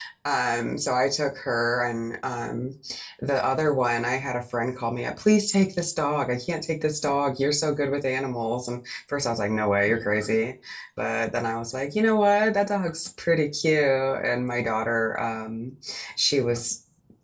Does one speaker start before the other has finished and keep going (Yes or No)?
No